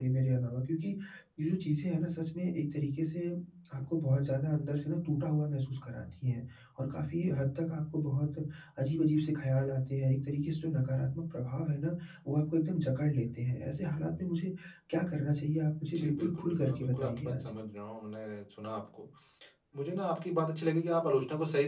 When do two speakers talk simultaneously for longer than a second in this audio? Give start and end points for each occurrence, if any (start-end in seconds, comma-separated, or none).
15.9-17.5